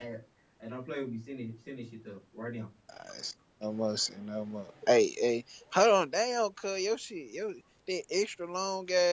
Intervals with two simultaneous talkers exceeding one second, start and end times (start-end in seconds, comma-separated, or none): none